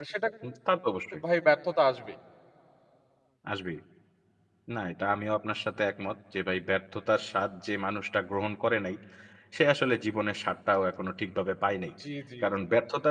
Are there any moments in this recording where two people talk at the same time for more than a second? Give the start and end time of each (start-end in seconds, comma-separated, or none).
none